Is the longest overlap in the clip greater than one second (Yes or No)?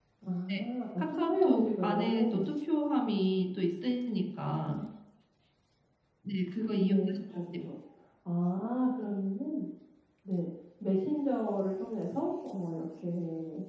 Yes